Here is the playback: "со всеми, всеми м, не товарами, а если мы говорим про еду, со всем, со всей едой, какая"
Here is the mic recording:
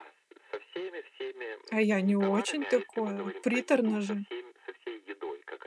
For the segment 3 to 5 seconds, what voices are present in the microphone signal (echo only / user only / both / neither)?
both